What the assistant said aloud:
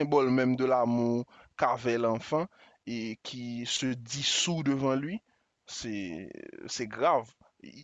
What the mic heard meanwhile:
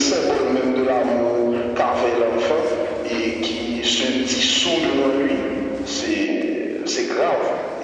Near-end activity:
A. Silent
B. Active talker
A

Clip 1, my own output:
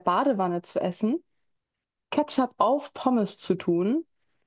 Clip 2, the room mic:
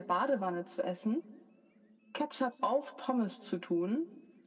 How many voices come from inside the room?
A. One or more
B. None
B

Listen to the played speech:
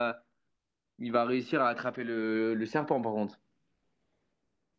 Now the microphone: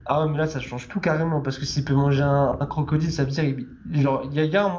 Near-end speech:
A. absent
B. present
B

